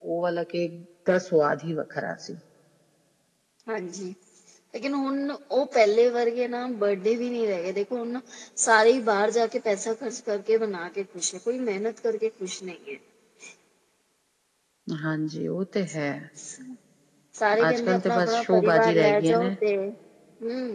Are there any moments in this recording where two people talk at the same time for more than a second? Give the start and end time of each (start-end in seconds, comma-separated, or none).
17.7-19.5